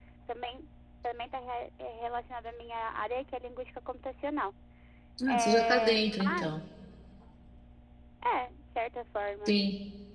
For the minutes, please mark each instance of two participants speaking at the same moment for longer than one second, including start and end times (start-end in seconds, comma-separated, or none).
5.3-6.6